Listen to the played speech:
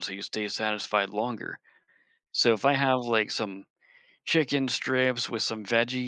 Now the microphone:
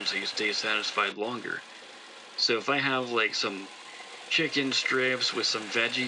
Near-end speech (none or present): none